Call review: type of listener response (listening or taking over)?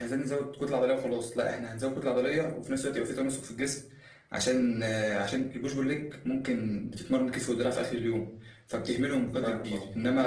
listening